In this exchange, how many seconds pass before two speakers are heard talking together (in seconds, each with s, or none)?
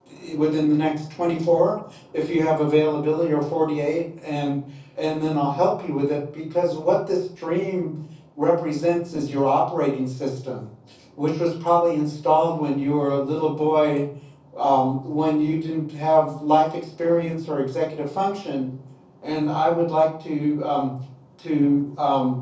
none